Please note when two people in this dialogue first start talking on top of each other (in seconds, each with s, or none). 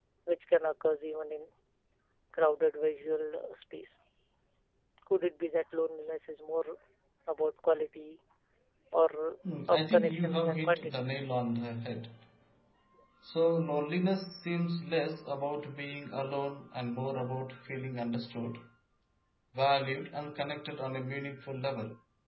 9.7 s